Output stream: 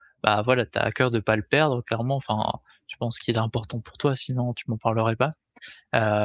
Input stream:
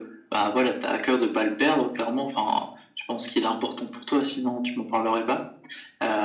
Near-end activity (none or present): none